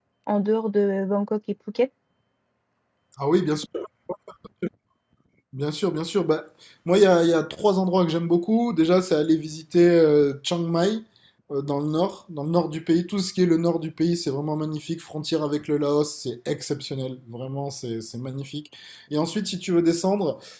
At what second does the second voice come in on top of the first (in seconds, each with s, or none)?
none